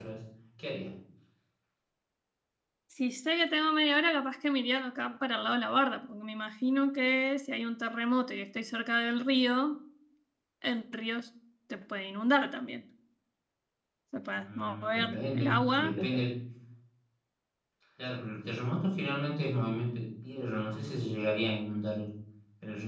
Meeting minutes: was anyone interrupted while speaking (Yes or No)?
Yes